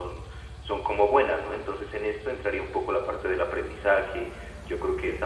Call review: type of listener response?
listening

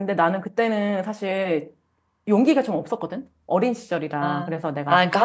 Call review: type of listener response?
taking over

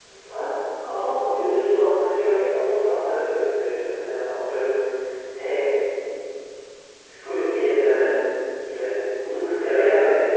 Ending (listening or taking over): taking over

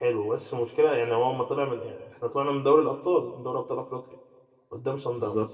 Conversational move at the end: listening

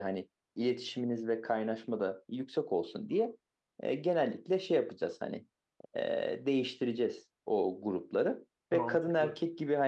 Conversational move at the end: listening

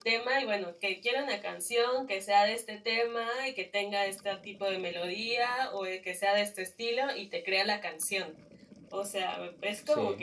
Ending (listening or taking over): listening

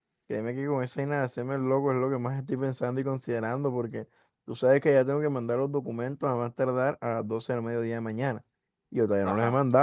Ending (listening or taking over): listening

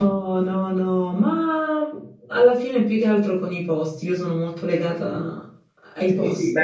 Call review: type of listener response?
taking over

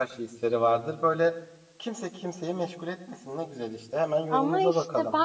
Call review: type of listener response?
taking over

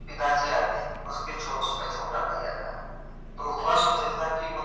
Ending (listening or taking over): listening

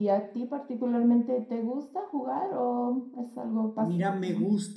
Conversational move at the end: taking over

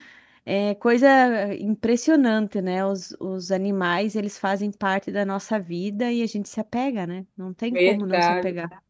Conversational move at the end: taking over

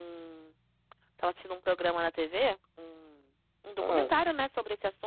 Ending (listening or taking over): listening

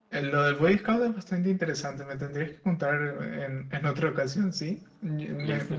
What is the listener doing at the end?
listening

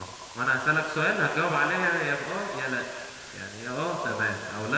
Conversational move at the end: listening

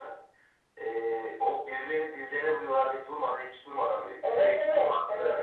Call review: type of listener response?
taking over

